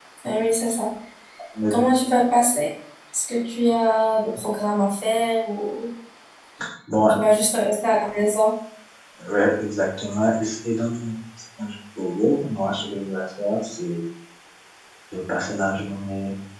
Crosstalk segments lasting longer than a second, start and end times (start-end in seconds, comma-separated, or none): none